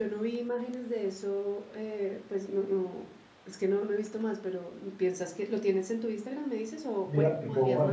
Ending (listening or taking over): taking over